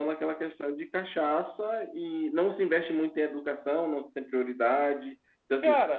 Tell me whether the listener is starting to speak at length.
No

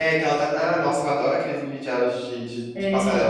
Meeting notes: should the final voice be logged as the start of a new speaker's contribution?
Yes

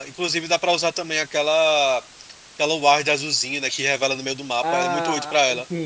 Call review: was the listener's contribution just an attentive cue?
No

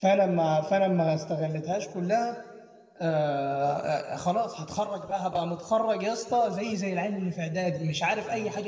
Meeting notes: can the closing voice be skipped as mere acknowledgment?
No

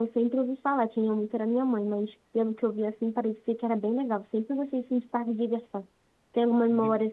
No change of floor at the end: Yes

